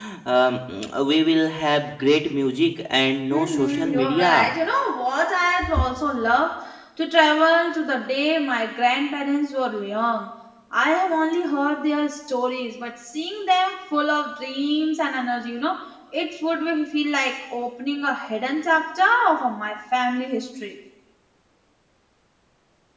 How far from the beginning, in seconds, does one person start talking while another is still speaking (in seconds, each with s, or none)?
3.3 s